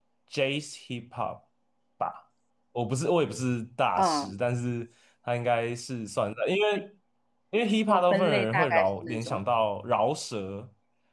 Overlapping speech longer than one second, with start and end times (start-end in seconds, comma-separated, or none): 7.9-9.5